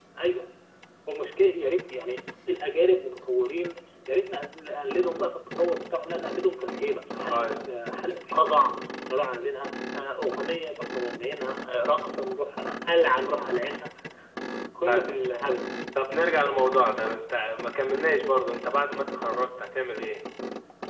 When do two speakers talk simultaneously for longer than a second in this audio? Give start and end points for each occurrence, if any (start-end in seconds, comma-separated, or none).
none